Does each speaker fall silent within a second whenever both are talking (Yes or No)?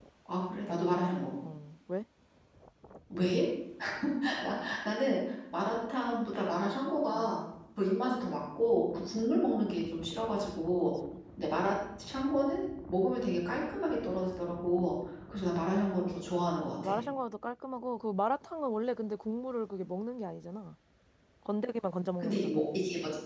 Yes